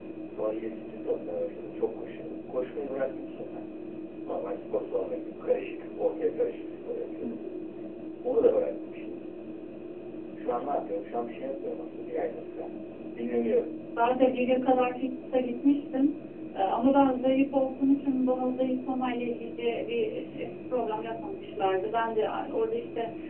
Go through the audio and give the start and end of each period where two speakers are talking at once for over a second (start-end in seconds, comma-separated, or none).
none